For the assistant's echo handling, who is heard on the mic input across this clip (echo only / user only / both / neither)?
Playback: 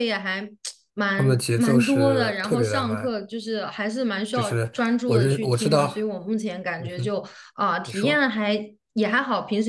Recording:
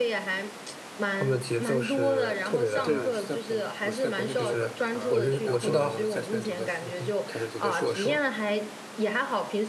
both